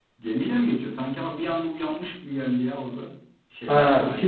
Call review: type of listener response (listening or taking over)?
taking over